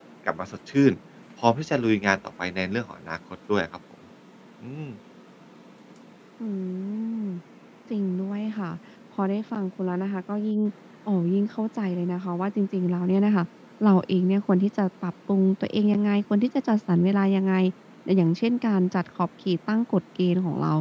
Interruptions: none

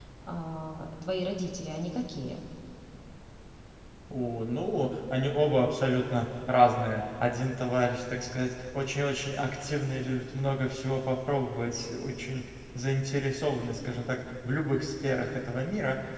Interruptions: none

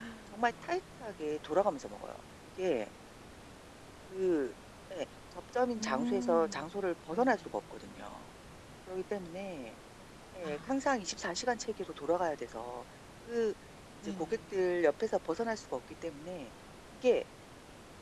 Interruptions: present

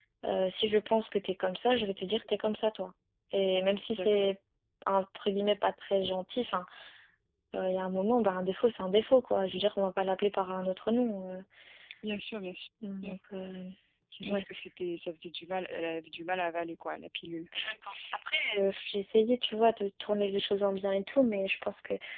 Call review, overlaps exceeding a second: none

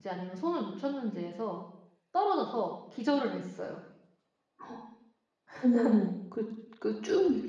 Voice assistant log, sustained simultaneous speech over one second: none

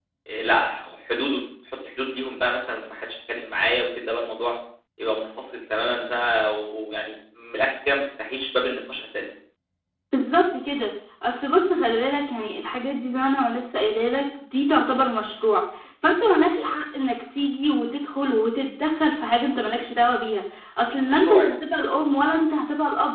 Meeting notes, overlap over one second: none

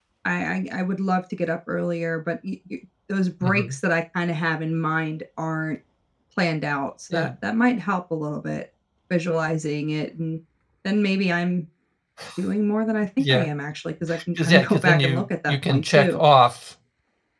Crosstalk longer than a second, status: present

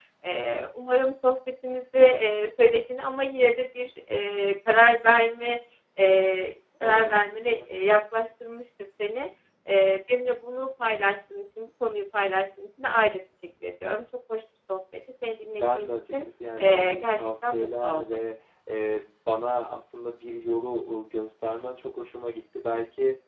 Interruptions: present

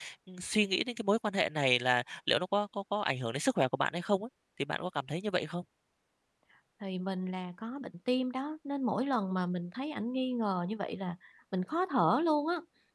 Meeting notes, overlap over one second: none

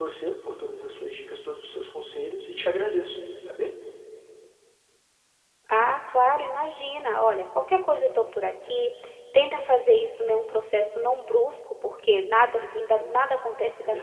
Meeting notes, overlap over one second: none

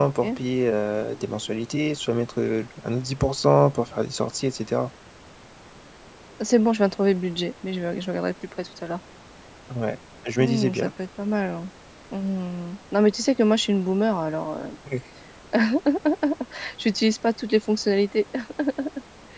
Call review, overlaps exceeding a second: none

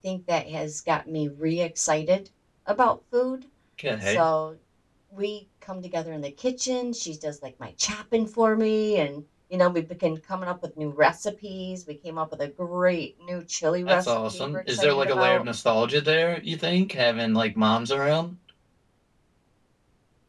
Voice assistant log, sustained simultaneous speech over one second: present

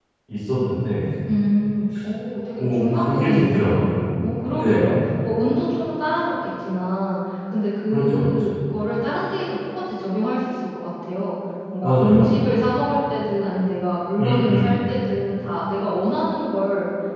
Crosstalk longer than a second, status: present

